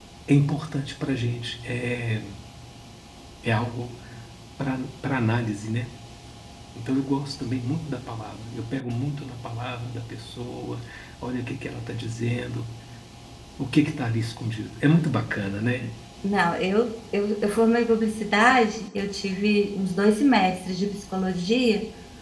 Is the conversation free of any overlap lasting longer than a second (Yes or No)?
Yes